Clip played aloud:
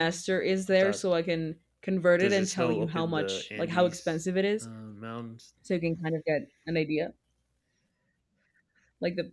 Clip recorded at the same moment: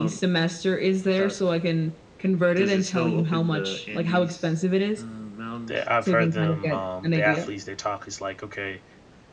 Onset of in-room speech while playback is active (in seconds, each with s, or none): 5.7 s